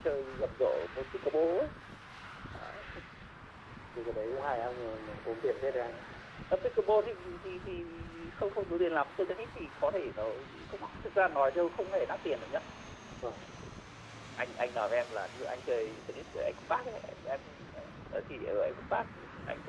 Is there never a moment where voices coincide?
Yes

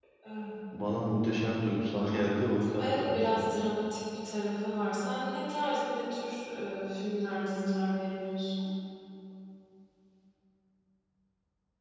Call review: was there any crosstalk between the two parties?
Yes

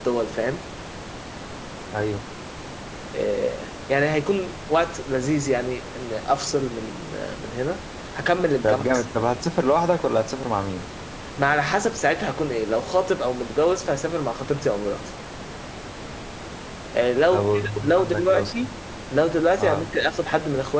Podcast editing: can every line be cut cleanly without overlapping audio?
No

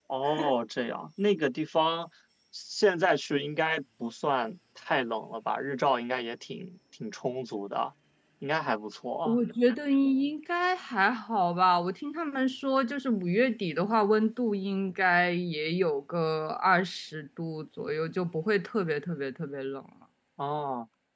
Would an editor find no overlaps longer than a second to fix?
Yes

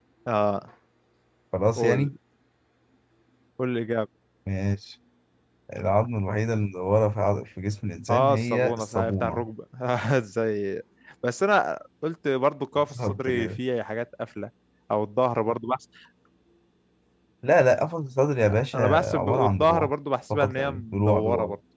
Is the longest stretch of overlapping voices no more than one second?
No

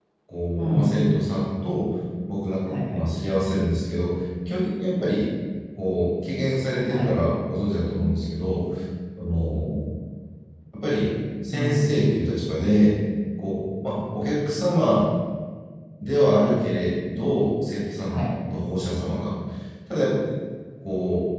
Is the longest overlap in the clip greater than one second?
No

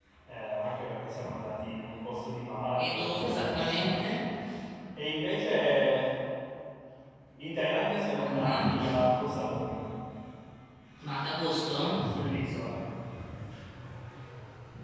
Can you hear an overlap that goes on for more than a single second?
Yes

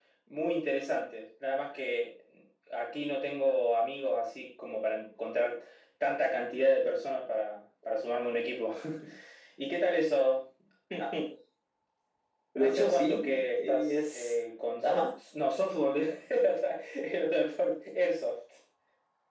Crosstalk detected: Yes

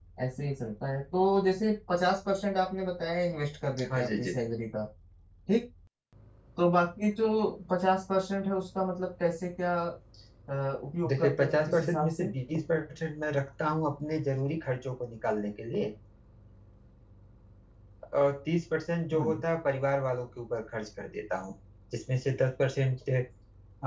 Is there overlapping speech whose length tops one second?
Yes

